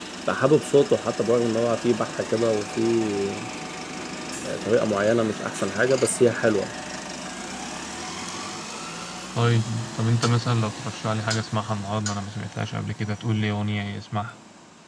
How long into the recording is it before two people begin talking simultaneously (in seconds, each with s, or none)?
none